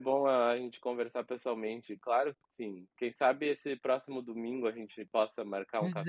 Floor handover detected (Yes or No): Yes